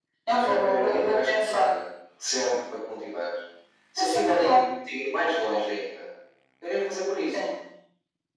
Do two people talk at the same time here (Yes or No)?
Yes